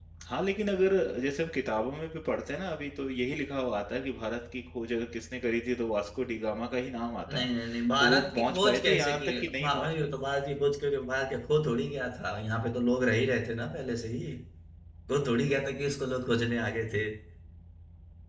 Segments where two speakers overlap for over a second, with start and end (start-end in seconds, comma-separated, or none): 8.0-9.9